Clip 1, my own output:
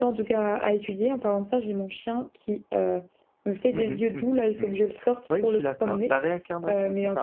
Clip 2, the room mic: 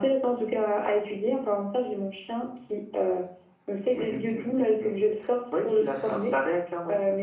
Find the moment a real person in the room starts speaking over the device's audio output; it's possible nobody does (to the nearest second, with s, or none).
none